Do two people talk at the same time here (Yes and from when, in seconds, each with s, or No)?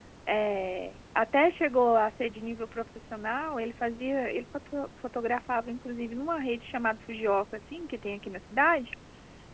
No